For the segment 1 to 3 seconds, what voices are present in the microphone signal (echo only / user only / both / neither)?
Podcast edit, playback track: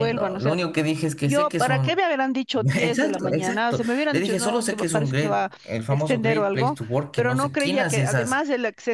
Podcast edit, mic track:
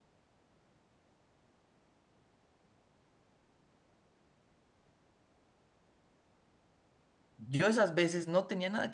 neither